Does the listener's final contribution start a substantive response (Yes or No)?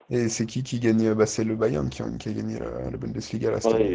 Yes